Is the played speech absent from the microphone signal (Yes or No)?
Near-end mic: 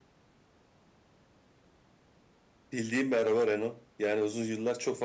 Yes